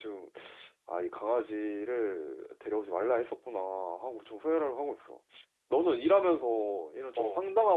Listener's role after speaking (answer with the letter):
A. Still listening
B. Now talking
A